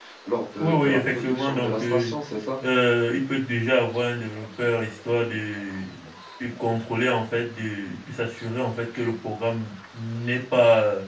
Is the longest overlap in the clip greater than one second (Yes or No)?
Yes